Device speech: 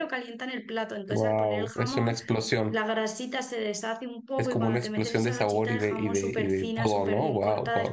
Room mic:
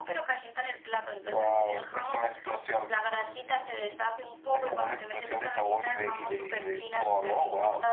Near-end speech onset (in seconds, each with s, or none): none